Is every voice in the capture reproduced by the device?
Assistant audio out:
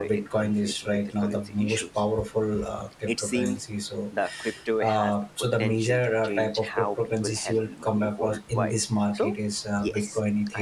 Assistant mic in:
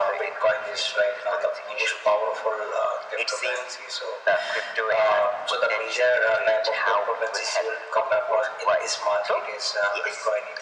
Yes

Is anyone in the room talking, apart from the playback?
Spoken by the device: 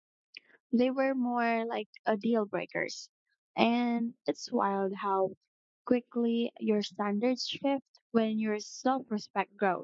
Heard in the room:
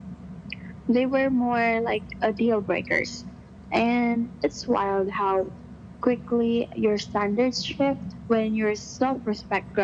No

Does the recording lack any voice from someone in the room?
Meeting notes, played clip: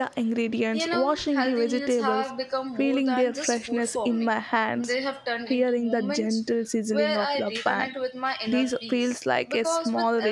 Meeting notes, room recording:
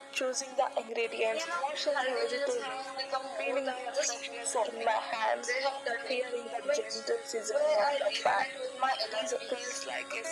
Yes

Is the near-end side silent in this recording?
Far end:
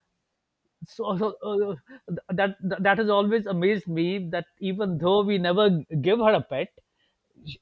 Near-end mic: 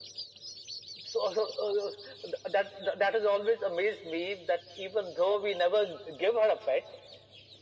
Yes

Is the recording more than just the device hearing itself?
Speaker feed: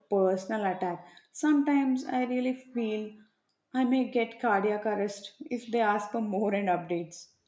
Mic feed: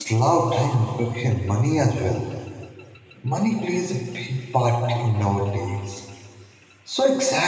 Yes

